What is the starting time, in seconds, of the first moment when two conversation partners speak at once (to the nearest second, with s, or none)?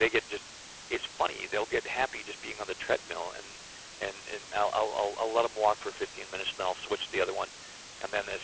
none